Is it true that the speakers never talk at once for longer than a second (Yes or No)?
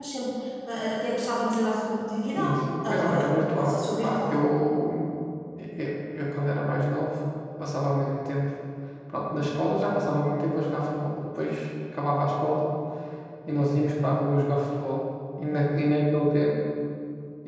No